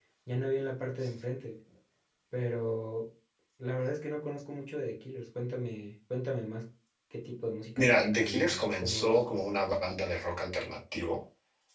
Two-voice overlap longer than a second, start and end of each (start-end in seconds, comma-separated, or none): 7.8-9.3